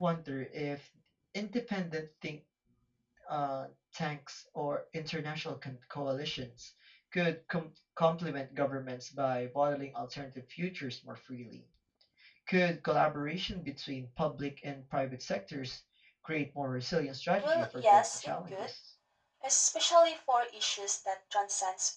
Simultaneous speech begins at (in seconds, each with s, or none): 17.4 s